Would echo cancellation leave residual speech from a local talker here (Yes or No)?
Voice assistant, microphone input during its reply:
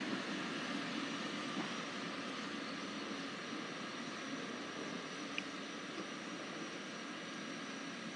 No